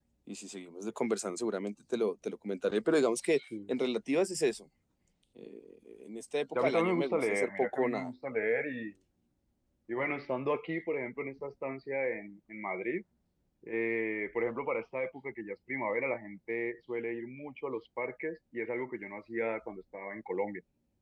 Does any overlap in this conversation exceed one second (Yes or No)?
Yes